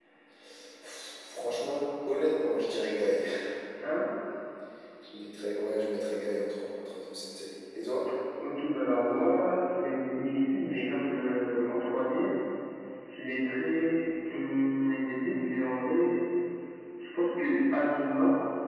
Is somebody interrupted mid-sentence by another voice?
No

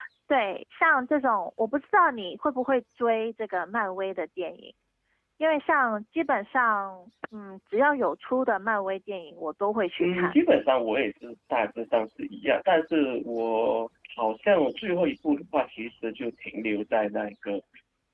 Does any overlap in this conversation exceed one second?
No

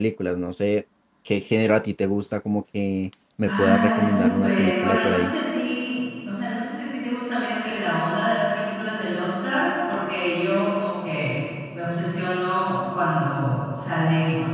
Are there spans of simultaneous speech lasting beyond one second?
Yes, from 3.5 s

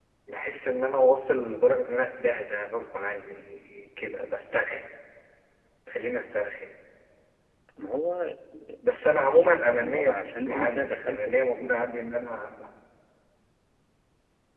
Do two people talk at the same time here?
Yes, from 9.2 s

